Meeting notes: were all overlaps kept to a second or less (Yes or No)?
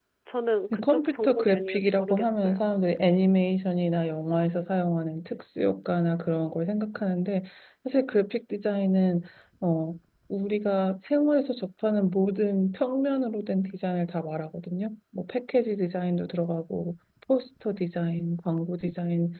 No